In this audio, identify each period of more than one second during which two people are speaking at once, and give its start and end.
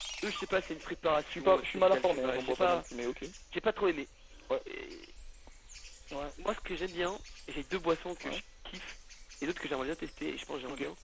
1.3-2.8

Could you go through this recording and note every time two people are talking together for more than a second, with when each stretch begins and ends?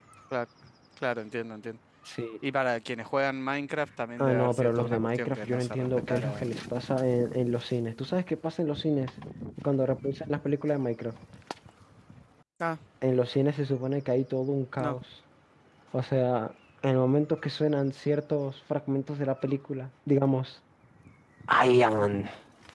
4.2-6.5

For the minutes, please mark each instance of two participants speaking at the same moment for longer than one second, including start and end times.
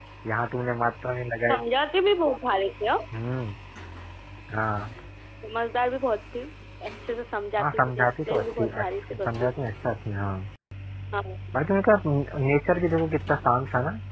7.6-9.5

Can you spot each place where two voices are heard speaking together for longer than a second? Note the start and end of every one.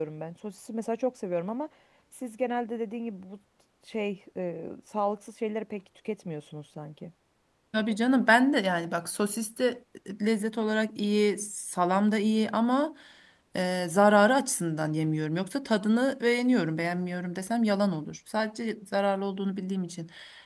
none

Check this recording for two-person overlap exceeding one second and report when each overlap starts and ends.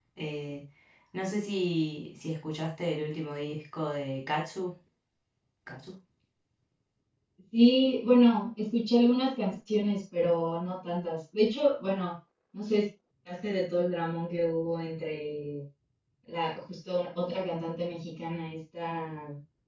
none

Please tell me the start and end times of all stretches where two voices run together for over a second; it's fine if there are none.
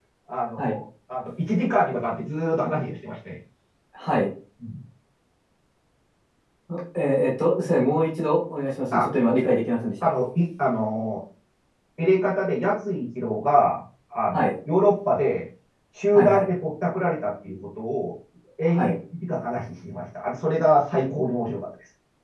none

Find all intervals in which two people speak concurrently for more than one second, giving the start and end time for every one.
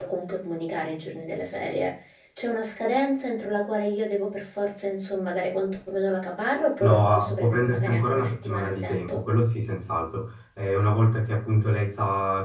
6.8-9.2

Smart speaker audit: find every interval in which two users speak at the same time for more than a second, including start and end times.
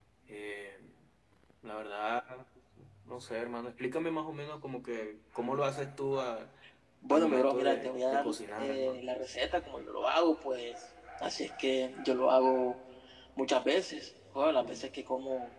7.1-9.0

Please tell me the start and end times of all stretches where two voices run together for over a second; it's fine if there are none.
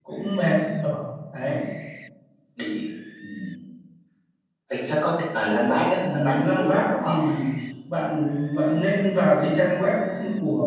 6.1-7.3

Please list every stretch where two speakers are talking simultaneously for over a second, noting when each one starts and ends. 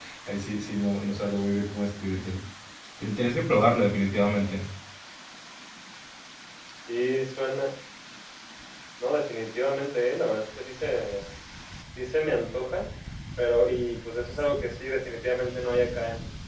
none

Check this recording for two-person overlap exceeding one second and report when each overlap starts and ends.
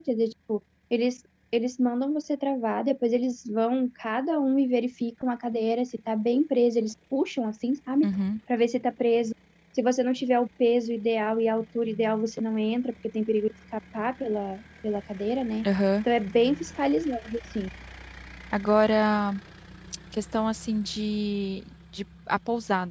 none

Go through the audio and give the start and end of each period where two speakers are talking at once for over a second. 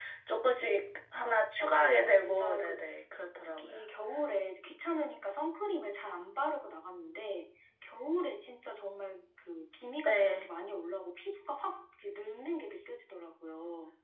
1.6-2.8

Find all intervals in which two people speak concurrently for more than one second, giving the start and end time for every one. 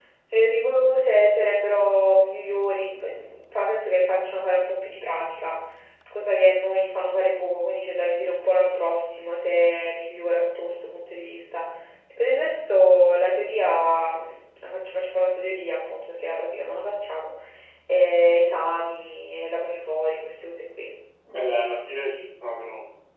none

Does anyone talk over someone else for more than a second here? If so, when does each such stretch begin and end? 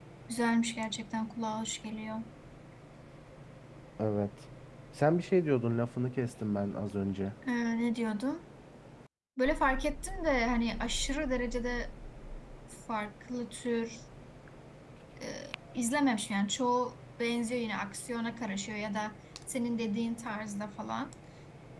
none

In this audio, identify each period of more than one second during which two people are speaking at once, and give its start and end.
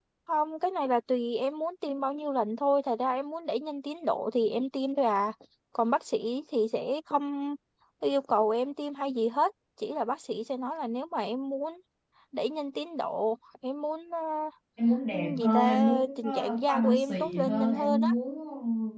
15.4-18.1

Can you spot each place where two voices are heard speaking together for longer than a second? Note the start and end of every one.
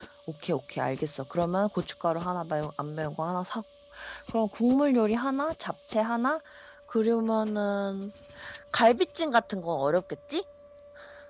none

